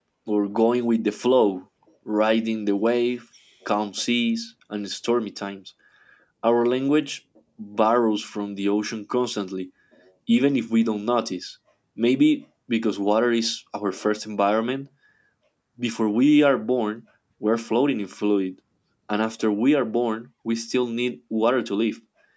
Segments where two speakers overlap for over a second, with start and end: none

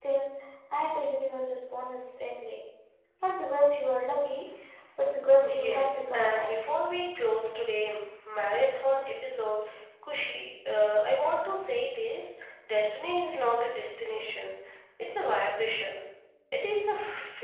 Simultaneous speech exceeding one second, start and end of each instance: 5.4-6.7

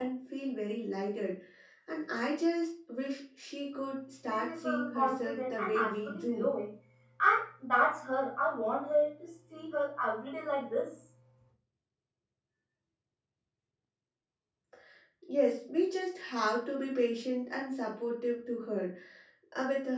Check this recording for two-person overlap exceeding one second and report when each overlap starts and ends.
4.3-6.5

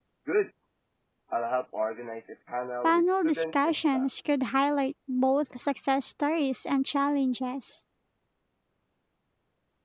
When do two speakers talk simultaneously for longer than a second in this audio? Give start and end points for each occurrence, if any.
2.8-4.1

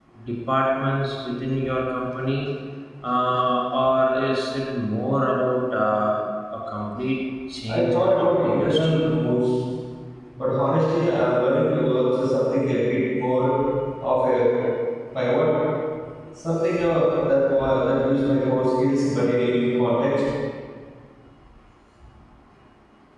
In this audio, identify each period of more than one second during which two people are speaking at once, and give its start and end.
7.7-9.0

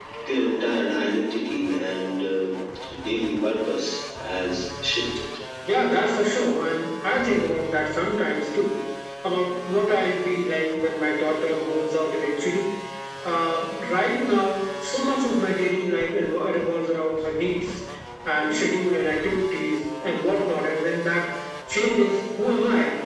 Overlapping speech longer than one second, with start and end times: none

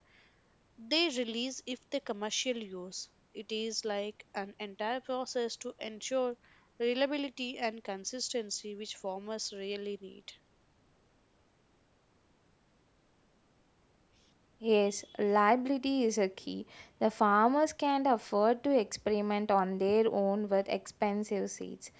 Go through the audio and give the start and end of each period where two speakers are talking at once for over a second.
none

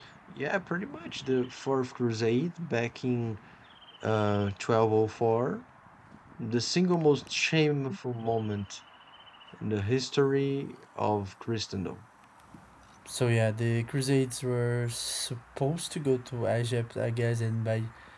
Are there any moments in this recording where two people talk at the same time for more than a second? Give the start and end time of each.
none

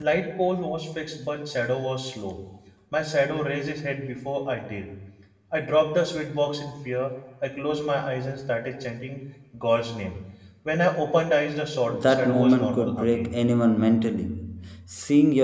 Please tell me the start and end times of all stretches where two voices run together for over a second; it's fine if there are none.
11.9-13.3

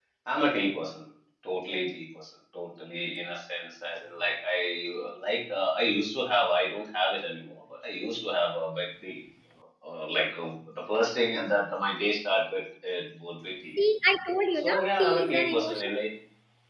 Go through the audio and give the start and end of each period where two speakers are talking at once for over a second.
14.5-15.9

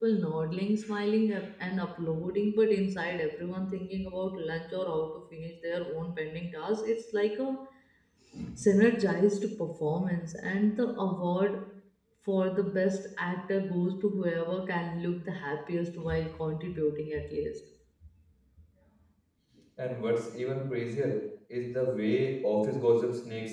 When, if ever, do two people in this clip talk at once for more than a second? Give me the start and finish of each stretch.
none

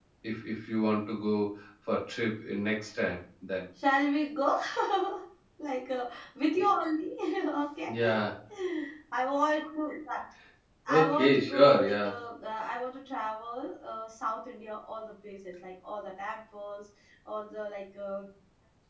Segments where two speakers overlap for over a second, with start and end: 10.9-12.2

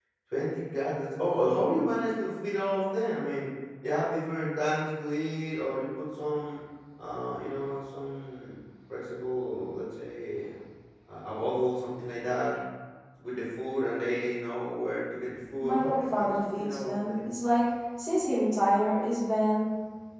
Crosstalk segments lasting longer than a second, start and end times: 15.6-17.3

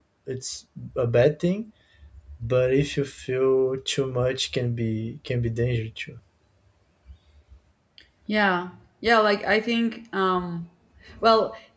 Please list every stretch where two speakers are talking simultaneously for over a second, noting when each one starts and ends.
none

